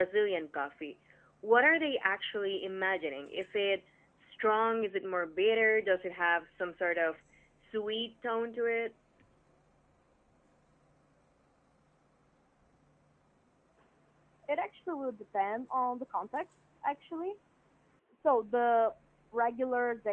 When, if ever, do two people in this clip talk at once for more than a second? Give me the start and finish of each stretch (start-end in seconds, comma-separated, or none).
none